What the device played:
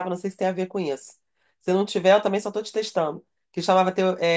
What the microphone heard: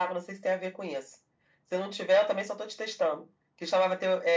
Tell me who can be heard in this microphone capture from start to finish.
echo only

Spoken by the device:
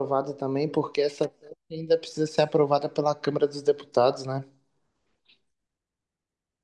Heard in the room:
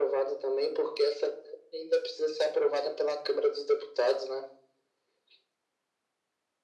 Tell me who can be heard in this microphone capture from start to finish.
echo only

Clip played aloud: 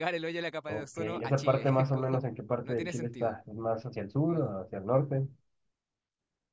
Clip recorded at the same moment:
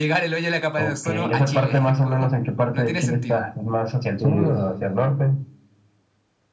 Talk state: both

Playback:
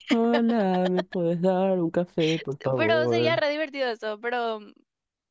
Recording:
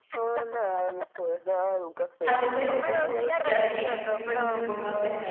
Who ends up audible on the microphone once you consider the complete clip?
both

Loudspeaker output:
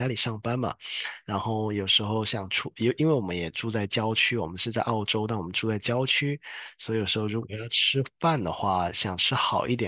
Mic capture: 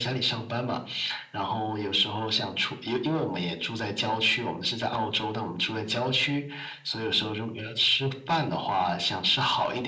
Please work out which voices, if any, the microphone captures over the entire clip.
echo only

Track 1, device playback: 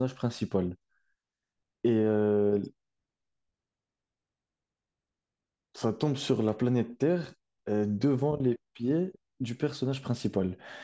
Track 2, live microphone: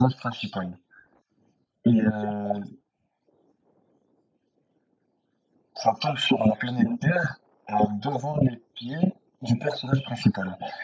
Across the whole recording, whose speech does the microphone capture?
echo only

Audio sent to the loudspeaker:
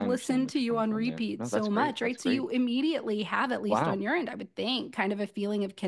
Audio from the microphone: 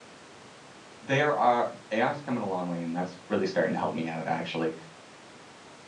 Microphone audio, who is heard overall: user only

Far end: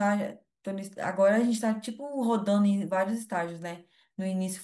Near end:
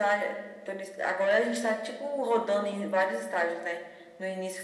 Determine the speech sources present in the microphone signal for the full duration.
echo only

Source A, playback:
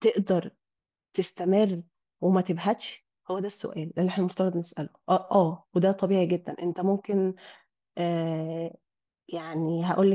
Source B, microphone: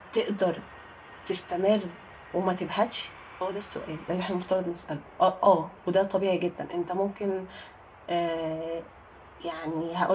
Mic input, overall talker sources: echo only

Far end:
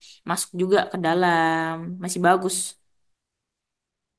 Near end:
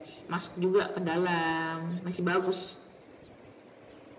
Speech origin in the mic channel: echo only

